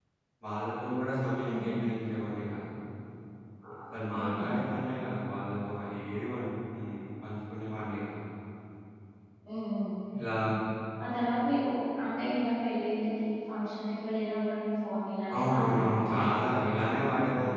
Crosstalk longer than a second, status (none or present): present